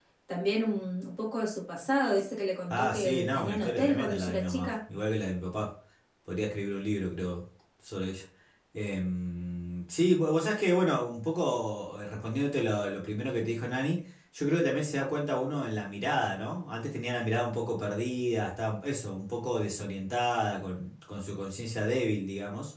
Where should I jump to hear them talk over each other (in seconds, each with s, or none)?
2.7 s